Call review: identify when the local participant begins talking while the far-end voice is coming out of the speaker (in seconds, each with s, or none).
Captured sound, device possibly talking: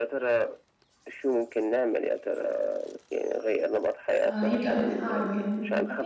4.2 s